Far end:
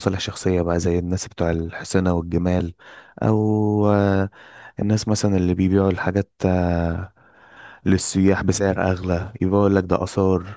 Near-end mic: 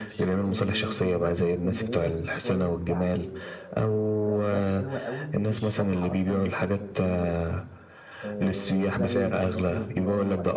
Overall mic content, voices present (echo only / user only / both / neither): both